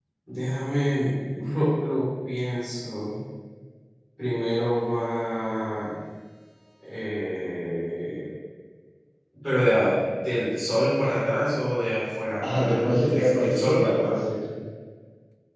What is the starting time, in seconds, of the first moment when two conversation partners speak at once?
12.4 s

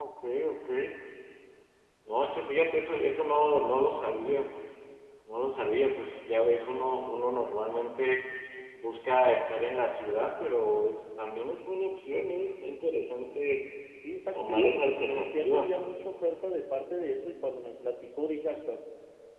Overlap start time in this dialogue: 14.3 s

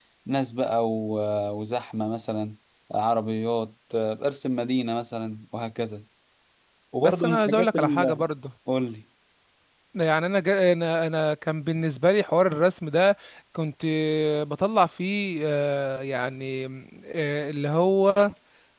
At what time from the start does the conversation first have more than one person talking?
7.0 s

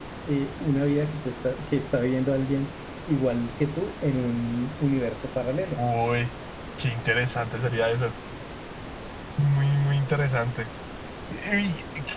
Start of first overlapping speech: none

